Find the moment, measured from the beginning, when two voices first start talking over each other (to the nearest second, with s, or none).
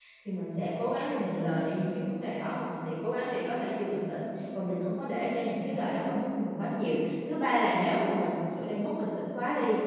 none